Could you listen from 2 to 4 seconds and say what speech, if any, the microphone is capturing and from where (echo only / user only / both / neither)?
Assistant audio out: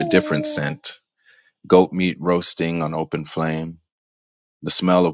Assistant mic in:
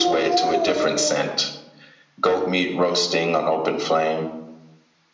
echo only